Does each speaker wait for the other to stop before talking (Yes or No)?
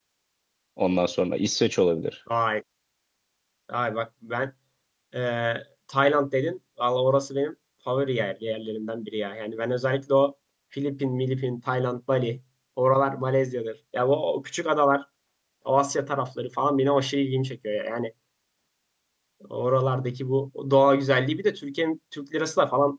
Yes